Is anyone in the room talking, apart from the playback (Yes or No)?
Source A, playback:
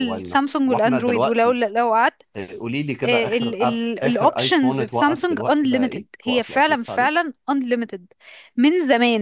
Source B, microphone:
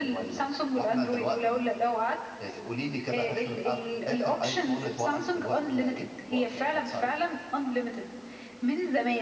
No